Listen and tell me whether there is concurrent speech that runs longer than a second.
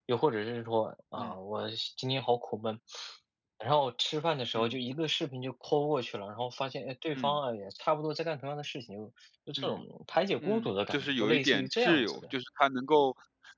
Yes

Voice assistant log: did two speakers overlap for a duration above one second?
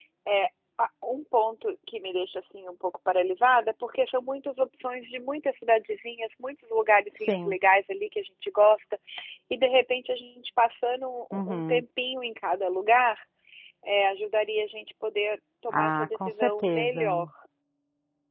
Yes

